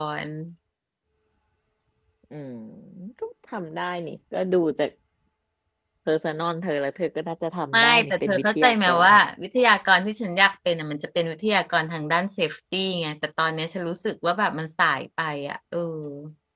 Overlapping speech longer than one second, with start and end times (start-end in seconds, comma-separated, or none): 7.7-9.2